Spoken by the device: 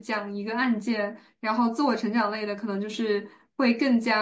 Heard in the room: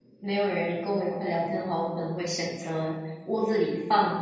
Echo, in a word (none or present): none